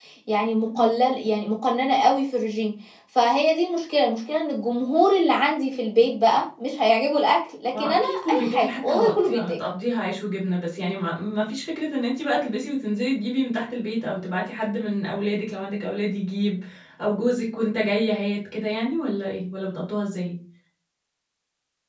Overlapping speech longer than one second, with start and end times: 7.8-9.5

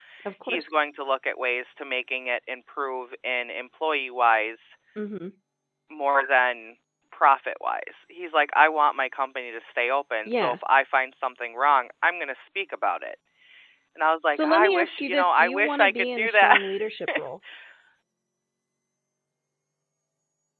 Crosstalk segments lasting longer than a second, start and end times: 14.3-16.6

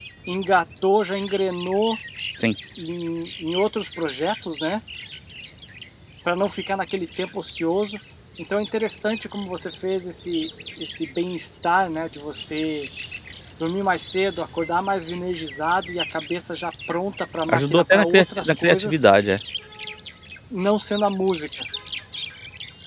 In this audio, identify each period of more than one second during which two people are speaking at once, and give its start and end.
17.5-19.0

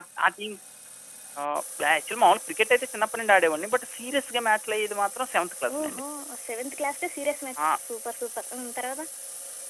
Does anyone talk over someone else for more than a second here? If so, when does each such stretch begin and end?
none

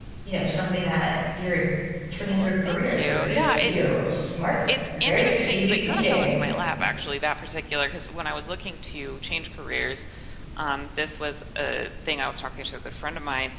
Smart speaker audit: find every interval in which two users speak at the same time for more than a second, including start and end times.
2.3-3.7, 5.0-6.4

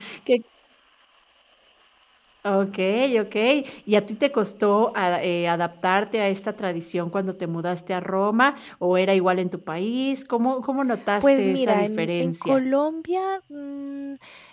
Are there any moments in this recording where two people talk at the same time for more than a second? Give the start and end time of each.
11.2-12.6

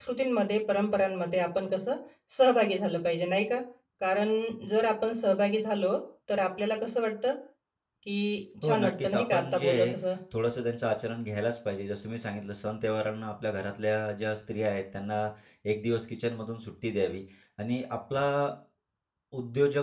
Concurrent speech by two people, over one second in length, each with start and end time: 8.6-9.9

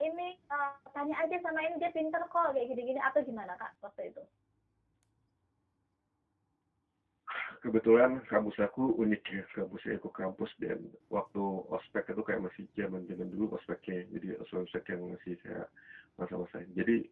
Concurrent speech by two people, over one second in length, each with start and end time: none

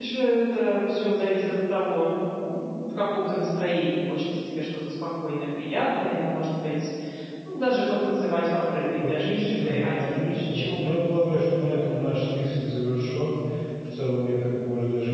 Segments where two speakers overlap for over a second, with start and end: 9.1-11.1

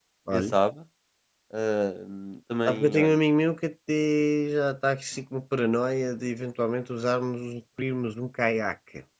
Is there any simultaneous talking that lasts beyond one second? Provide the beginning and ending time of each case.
none

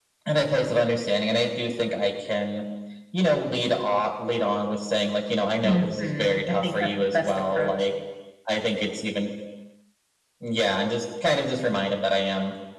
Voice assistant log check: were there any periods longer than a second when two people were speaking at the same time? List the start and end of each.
5.6-7.9

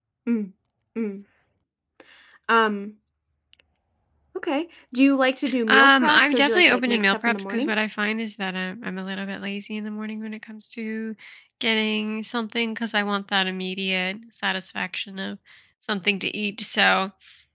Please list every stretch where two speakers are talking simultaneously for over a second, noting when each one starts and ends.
5.7-7.7

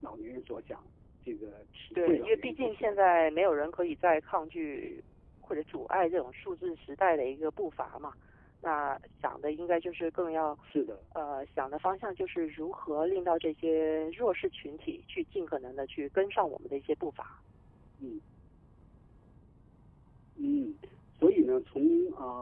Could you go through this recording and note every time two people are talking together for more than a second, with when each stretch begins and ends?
1.9-3.4

